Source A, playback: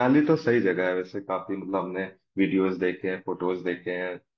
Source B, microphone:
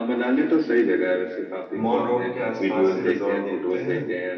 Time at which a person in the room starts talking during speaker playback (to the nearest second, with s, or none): 2 s